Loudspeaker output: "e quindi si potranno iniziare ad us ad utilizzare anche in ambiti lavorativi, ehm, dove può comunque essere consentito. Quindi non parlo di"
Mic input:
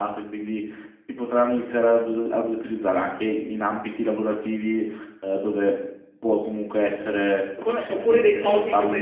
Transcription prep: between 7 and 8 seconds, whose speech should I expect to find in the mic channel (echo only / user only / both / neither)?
both